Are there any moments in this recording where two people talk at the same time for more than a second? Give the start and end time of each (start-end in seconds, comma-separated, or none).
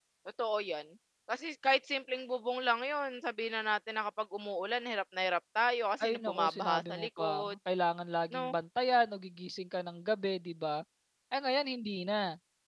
6.0-7.5